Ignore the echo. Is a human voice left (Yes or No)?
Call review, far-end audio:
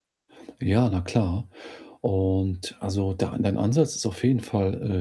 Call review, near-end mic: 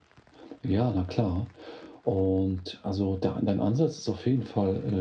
No